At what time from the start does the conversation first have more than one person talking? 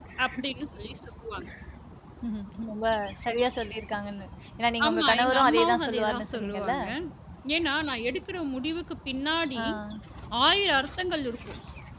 4.8 s

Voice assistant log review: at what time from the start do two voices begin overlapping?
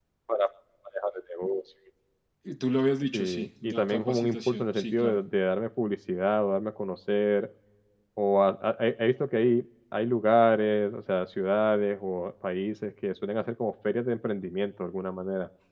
3.1 s

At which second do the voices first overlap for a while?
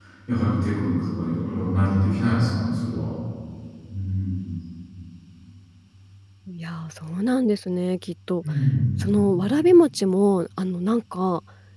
none

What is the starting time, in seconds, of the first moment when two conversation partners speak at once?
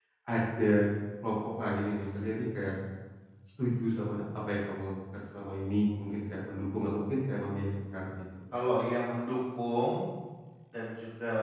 none

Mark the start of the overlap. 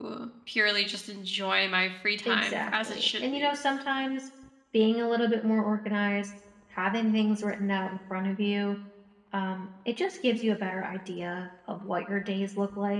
2.3 s

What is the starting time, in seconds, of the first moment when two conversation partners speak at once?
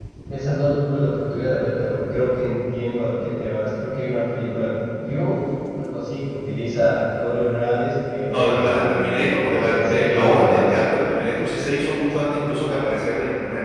8.3 s

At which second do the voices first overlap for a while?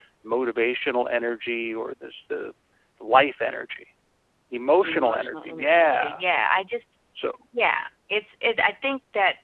4.8 s

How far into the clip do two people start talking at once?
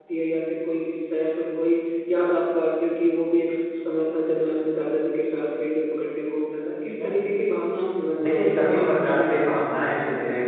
8.2 s

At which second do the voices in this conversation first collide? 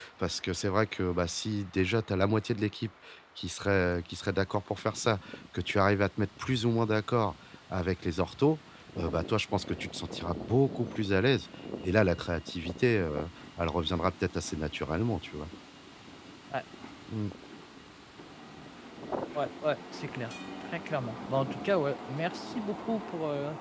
none

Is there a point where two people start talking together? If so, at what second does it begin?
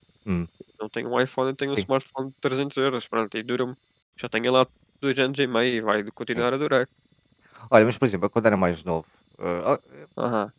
none

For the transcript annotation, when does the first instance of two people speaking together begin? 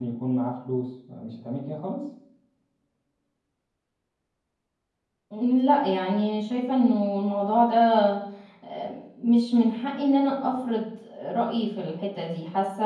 none

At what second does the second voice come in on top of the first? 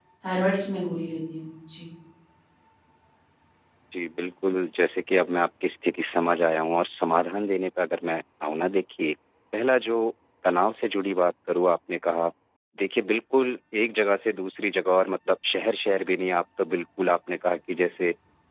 none

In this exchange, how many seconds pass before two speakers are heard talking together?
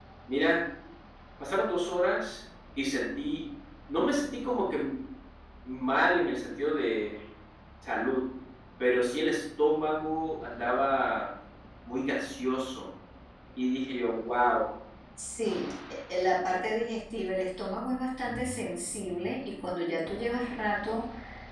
none

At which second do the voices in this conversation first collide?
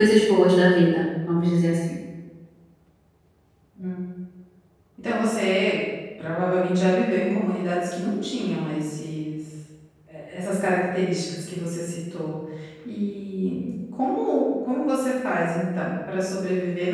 none

